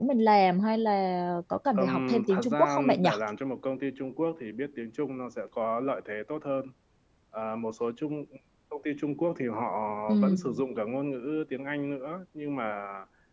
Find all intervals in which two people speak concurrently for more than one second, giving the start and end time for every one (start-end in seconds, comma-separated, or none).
1.8-3.1